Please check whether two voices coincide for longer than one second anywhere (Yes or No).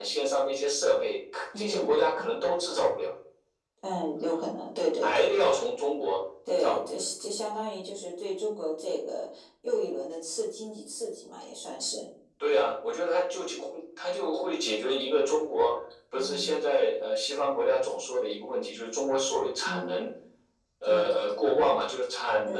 No